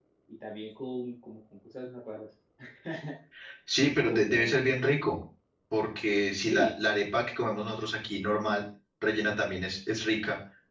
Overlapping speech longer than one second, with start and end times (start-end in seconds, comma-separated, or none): none